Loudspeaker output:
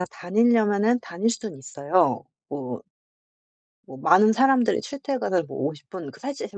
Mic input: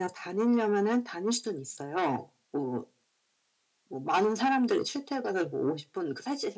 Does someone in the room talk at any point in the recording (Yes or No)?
No